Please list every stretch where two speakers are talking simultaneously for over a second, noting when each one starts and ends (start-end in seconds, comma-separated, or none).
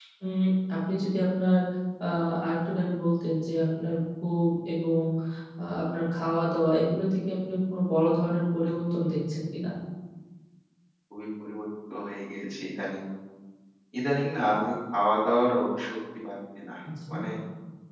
none